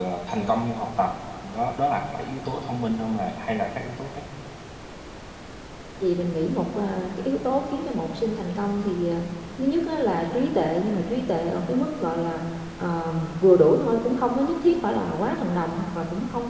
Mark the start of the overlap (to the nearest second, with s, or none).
none